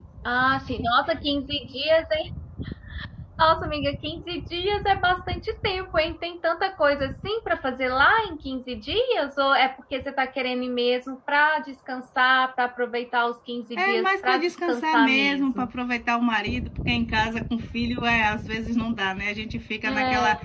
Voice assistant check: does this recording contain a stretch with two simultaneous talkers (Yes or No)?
Yes